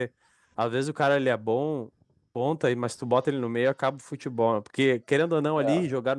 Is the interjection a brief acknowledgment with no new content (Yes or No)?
Yes